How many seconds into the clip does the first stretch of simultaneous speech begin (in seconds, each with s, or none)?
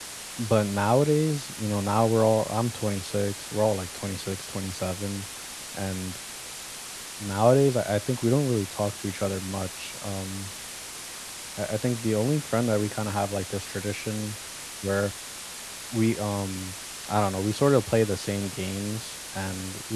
none